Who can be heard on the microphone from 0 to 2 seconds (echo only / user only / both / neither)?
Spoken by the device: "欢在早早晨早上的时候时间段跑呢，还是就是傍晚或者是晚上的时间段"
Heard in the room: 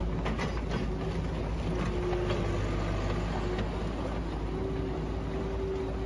neither